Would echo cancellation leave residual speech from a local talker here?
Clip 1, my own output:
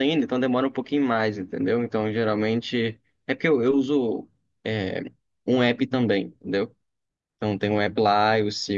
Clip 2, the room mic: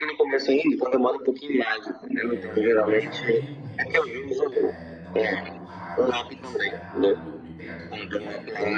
Yes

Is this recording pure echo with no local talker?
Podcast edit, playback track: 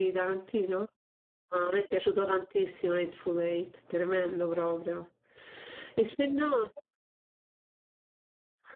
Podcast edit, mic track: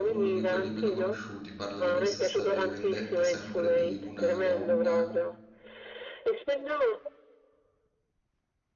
No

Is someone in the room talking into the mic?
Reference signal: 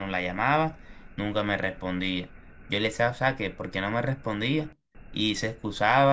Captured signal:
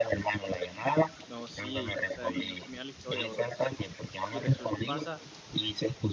Yes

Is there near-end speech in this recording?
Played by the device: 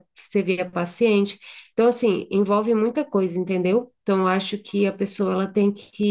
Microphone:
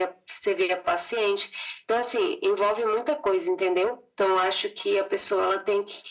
No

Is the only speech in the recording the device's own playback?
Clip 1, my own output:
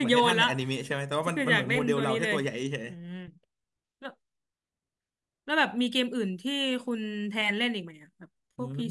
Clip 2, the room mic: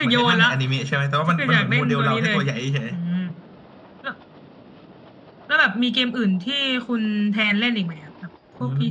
Yes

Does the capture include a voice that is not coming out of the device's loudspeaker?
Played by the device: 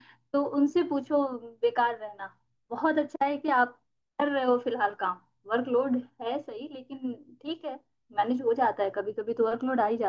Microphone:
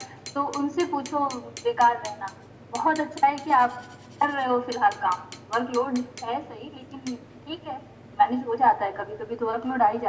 No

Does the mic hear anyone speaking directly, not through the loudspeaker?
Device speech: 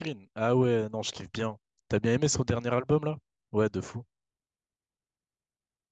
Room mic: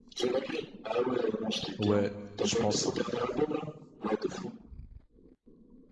Yes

